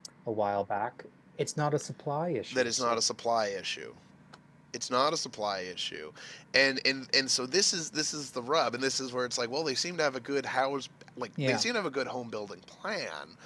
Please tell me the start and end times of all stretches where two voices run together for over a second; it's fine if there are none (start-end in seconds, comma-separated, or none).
none